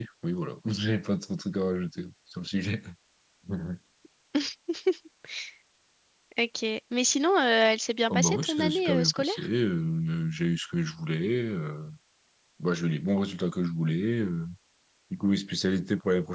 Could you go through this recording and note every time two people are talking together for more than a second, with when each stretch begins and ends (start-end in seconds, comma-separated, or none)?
8.1-9.5